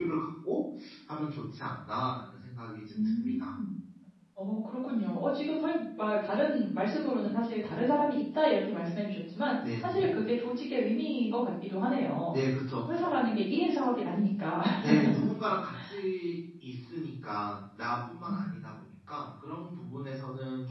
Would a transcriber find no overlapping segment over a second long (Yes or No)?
Yes